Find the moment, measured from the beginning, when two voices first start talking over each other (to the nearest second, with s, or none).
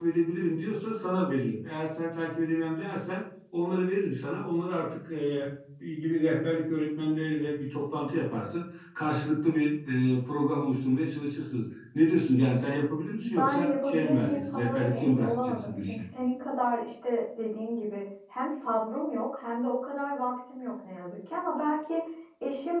13 s